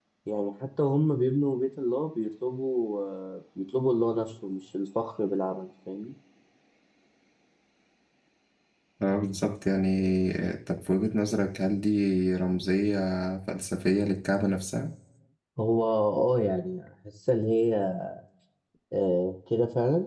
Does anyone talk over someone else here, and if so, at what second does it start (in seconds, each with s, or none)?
none